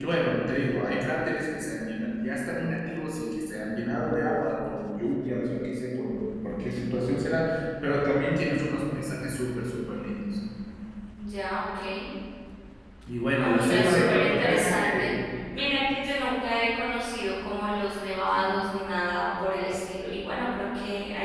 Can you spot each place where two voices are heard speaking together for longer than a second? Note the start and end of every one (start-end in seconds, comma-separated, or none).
13.3-15.1